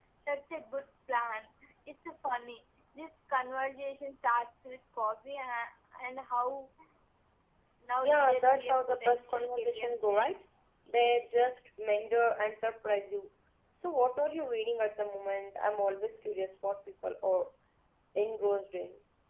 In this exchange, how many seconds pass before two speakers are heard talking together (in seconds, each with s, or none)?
8.0 s